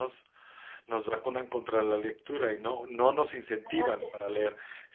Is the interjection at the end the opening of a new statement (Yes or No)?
No